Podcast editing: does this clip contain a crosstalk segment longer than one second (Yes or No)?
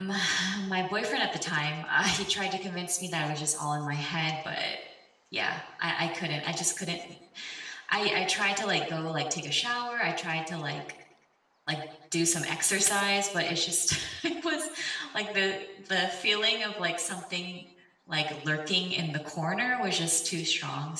No